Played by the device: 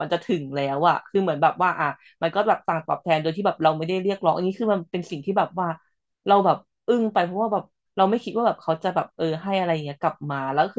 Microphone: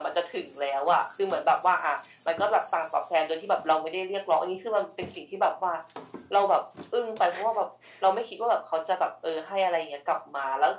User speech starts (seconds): none

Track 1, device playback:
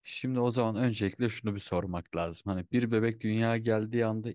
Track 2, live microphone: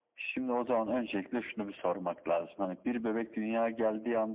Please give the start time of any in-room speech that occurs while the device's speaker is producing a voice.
none

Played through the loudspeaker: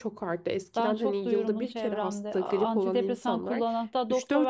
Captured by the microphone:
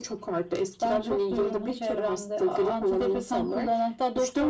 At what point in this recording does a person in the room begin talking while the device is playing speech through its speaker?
none

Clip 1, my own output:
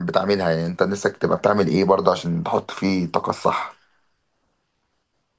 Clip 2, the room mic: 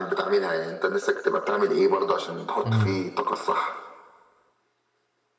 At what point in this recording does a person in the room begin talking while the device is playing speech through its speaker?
2.6 s

